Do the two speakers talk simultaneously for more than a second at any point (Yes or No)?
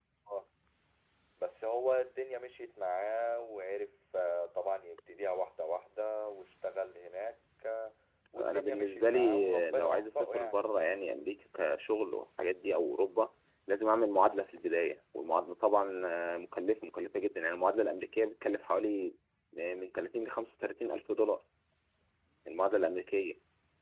Yes